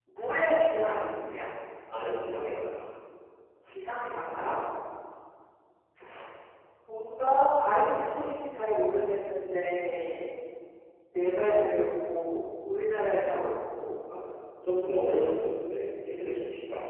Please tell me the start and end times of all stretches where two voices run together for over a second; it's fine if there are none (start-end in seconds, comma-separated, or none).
none